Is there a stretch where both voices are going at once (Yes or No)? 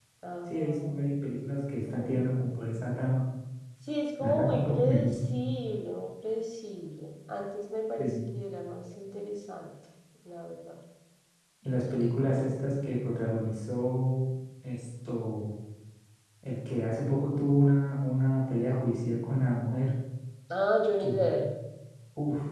Yes